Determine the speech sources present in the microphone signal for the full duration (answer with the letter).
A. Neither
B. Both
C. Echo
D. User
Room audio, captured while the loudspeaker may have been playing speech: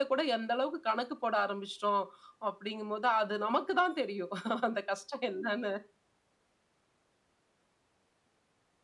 C